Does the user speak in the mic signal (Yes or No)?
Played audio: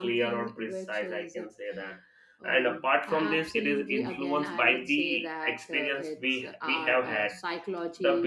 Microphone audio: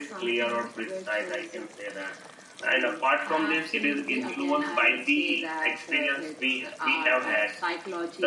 No